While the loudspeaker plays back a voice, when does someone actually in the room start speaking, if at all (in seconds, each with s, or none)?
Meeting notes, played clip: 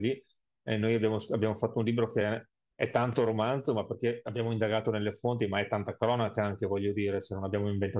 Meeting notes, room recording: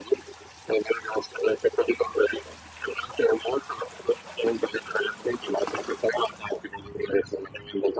none